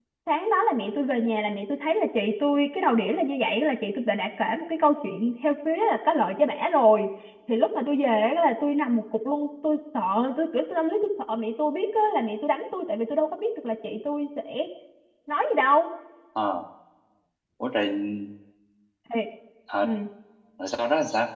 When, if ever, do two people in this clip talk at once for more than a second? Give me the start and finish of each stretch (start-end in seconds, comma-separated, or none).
none